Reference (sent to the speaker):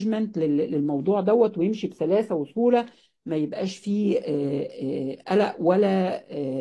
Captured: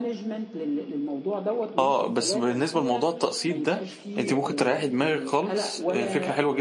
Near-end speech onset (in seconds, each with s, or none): 1.8 s